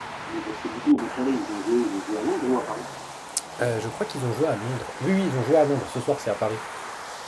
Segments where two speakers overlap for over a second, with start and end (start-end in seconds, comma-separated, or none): none